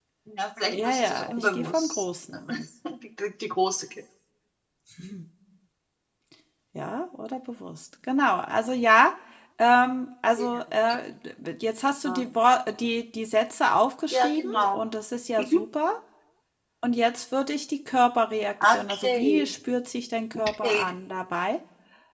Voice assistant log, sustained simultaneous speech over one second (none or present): present